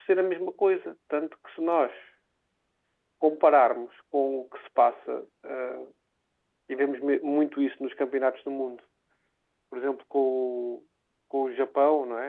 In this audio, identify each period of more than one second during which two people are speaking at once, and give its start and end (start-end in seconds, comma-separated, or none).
none